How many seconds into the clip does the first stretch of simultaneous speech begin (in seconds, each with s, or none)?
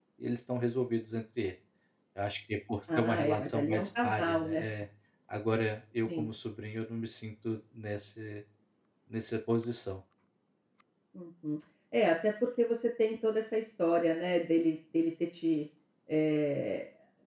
3.0 s